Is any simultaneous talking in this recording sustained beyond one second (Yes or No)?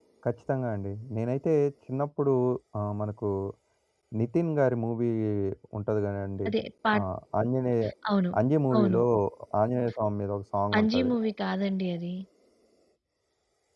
No